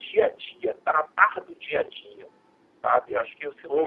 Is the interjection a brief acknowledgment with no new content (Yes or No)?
No